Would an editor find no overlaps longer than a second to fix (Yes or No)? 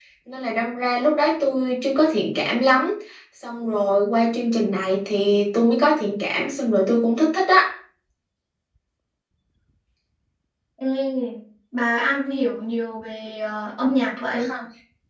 Yes